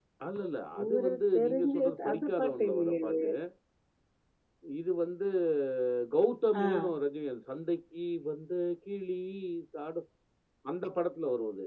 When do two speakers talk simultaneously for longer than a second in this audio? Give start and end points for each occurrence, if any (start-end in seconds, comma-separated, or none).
0.8-3.1